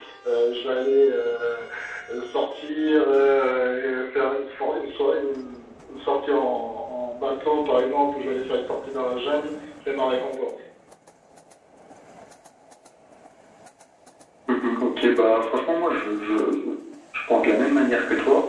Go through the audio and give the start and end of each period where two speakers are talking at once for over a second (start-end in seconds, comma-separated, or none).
none